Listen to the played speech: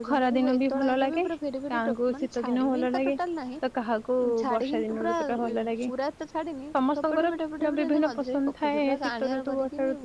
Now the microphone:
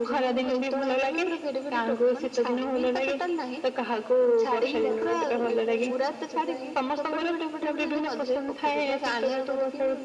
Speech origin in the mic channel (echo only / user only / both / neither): both